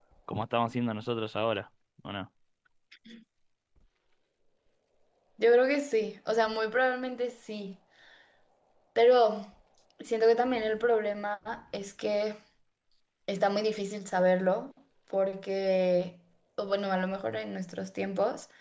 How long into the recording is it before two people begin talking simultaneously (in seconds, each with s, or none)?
none